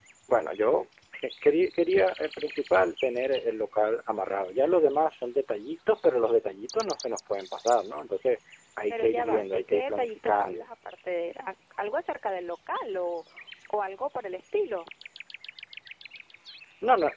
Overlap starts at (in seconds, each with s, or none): 8.9 s